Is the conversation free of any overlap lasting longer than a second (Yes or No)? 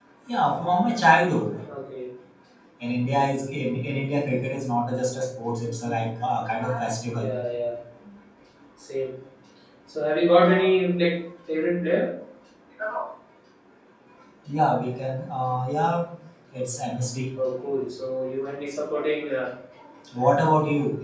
Yes